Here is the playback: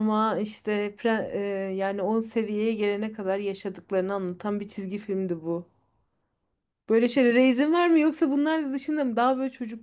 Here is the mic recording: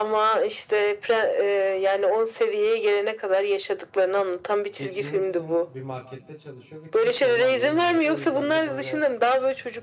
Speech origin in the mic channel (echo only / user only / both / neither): both